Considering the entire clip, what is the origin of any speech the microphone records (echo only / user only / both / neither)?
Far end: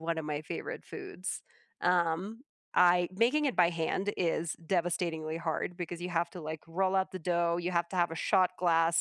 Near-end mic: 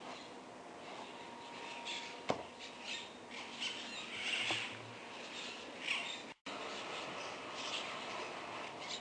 neither